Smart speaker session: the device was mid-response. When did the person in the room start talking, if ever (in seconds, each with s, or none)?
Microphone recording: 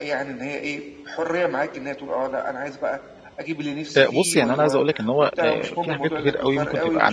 4.0 s